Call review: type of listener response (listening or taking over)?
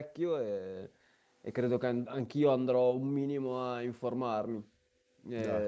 listening